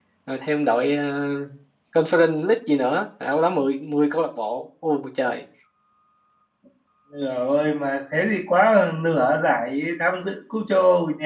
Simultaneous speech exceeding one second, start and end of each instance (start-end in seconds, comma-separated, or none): none